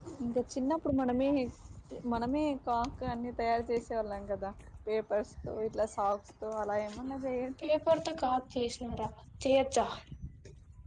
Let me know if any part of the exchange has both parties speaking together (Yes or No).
No